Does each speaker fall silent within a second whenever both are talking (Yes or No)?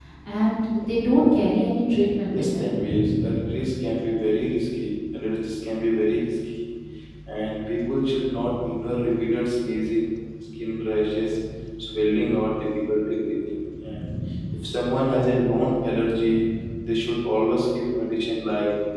No